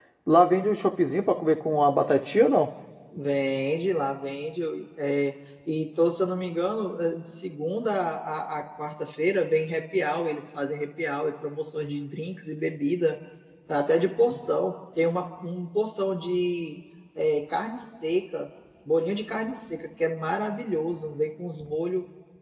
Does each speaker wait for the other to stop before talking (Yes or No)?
Yes